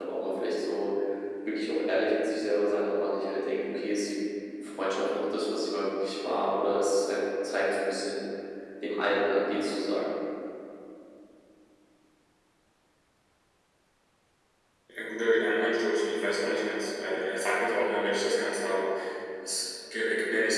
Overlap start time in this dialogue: none

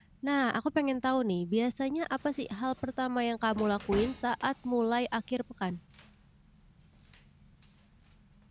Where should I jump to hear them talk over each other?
none

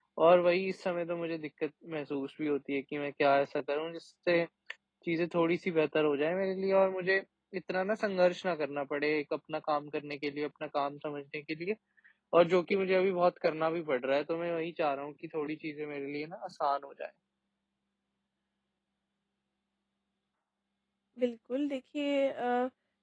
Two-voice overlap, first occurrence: none

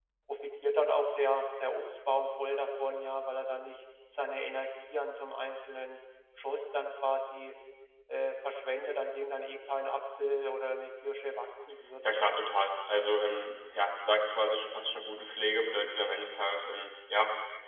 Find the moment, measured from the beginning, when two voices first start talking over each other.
none

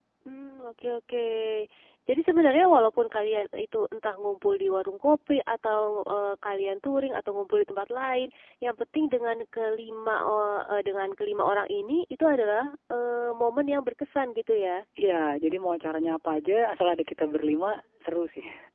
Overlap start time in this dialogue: none

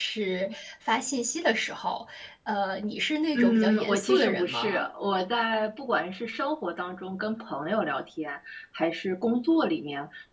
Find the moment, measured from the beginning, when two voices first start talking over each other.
3.4 s

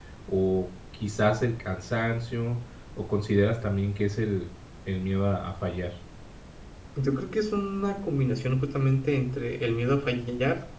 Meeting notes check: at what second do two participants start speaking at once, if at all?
none

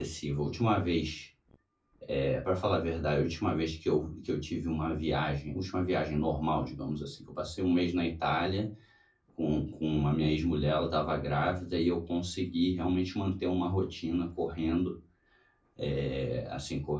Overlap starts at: none

